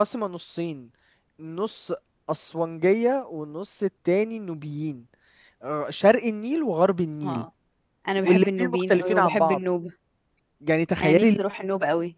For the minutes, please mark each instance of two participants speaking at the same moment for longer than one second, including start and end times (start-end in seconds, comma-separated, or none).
8.2-9.6